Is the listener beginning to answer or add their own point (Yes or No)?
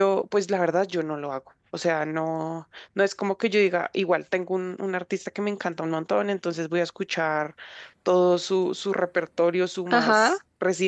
No